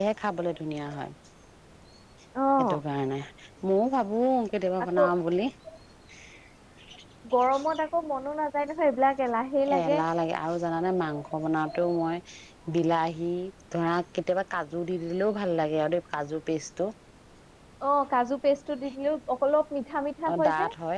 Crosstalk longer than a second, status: none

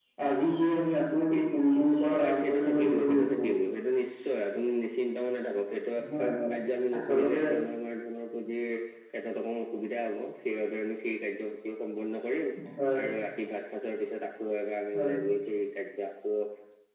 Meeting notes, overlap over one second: present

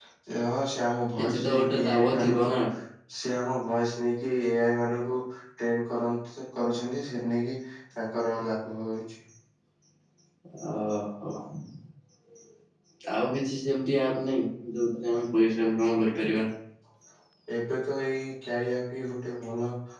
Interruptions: present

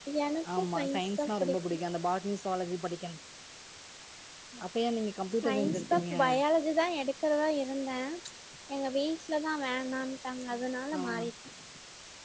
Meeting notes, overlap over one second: present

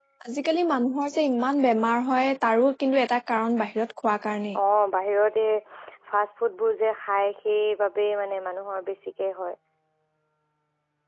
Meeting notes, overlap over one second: none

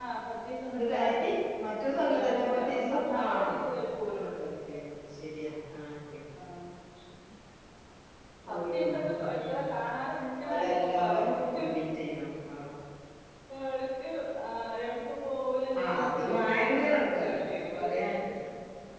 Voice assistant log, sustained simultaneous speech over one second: present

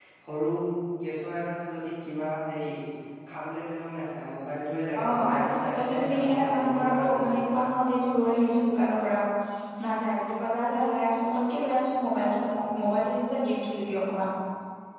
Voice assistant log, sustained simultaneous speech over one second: present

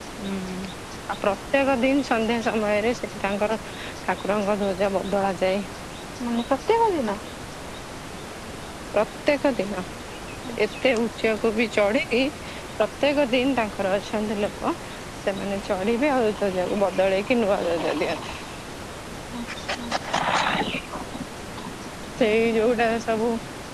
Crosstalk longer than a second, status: none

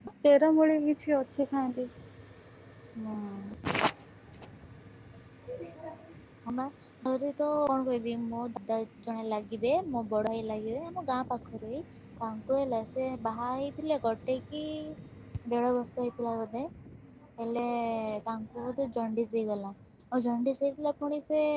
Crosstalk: none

